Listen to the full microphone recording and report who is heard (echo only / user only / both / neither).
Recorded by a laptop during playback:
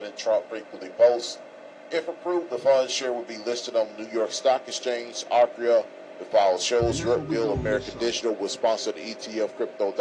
both